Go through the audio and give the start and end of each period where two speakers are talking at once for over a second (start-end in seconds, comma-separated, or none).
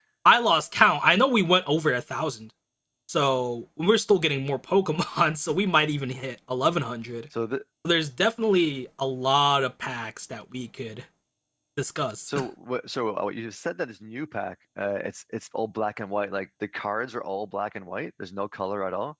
none